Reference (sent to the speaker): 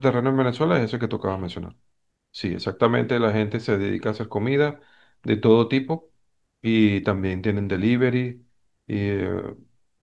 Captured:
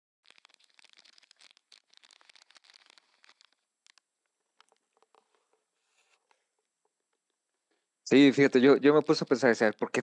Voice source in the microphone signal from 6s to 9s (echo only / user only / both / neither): user only